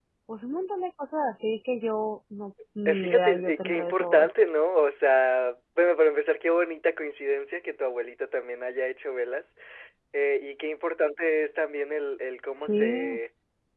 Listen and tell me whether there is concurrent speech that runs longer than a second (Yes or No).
Yes